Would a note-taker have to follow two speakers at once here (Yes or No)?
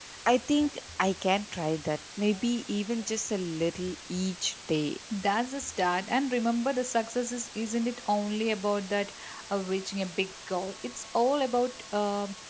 No